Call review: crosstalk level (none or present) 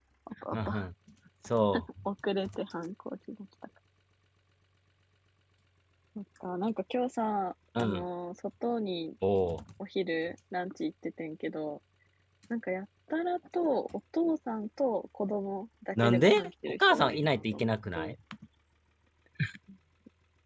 present